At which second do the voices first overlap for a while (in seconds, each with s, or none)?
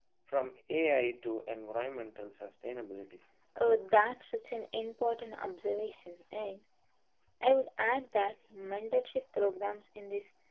none